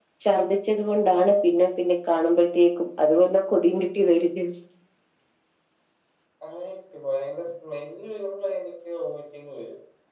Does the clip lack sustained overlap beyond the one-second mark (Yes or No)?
Yes